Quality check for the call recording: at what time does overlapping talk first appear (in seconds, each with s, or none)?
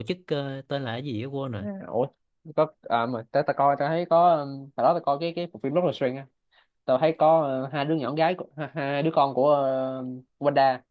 none